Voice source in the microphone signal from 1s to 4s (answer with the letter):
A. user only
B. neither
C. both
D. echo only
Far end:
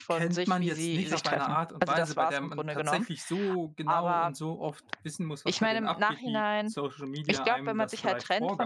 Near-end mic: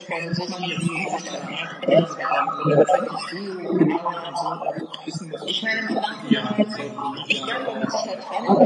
D